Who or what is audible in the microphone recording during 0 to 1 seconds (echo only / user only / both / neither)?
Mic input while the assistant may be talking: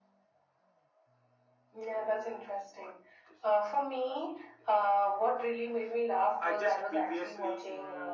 neither